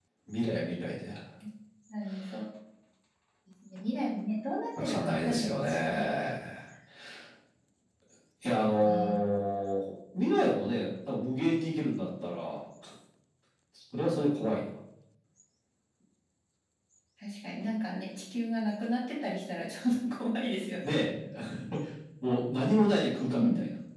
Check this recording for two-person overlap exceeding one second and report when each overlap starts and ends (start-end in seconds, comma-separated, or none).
4.8-6.0